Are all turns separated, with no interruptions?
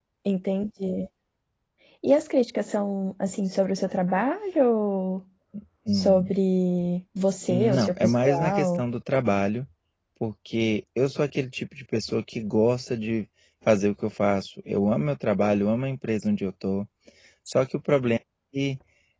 No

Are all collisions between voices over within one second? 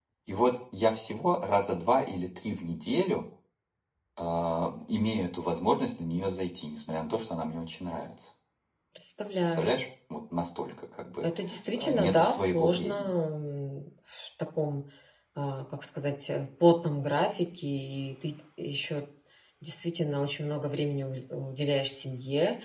No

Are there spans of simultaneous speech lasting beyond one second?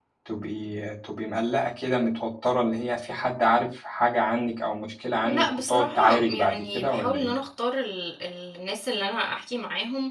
Yes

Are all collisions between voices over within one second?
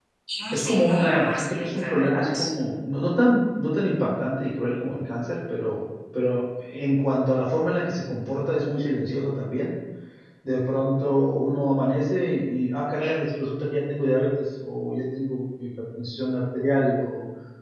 No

